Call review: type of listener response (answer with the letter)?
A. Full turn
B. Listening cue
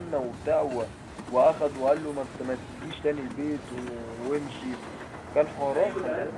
A